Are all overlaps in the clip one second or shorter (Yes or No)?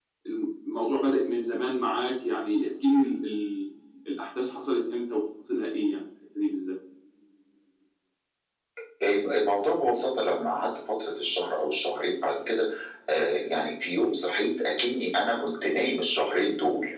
Yes